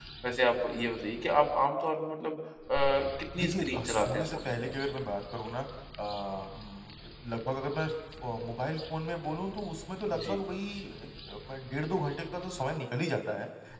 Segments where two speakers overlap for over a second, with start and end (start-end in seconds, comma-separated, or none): 3.4-4.7